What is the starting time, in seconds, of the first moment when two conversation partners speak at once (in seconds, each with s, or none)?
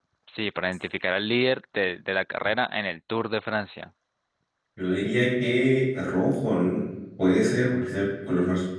none